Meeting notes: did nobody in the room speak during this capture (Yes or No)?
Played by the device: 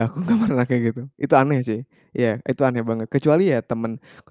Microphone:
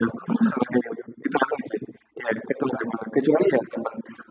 Yes